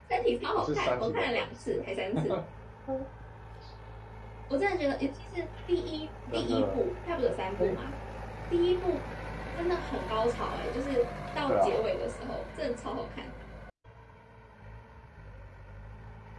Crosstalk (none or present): present